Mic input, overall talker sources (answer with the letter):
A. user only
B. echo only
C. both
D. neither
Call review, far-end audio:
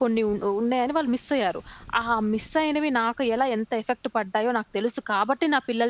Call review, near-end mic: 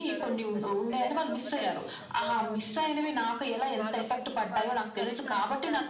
C